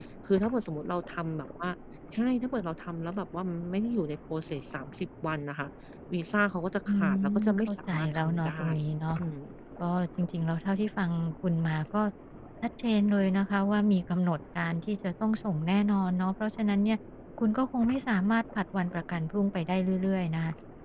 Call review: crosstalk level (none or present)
present